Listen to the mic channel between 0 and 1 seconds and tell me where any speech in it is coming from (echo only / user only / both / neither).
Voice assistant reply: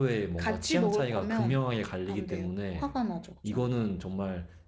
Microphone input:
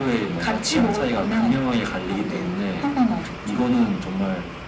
echo only